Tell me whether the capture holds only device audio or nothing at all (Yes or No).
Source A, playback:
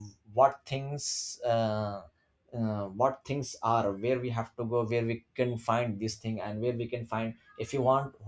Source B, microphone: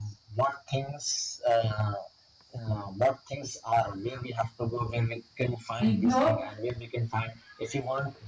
No